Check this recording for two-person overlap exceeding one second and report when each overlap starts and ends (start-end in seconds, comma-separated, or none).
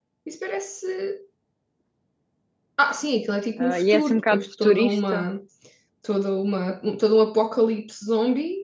3.6-5.3